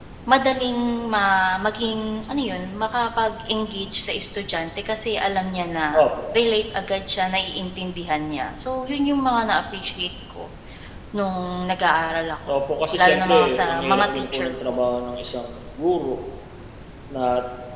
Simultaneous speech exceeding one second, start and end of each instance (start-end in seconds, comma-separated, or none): 13.0-14.7